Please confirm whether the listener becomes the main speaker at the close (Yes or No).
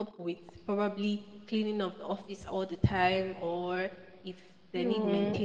No